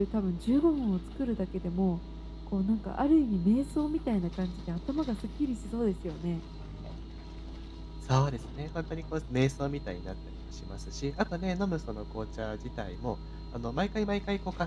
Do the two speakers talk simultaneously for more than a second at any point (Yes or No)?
No